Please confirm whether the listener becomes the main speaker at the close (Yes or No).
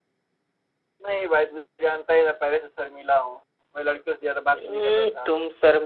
Yes